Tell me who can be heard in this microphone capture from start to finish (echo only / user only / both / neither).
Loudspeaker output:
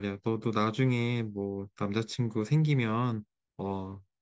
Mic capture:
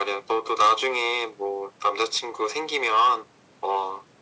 echo only